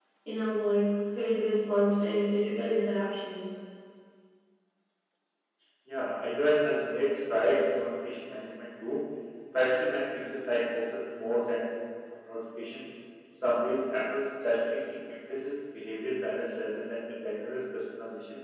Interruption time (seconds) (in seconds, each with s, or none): none